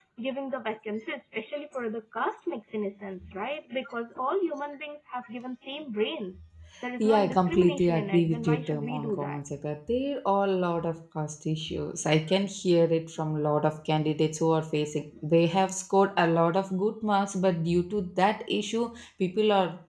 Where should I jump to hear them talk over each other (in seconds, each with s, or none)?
6.7 s